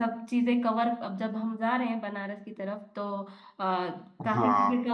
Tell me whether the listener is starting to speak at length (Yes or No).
No